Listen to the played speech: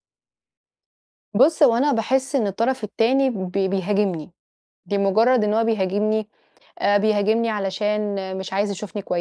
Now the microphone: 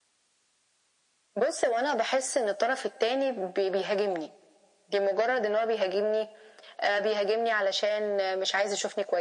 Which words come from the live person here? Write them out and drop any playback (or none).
none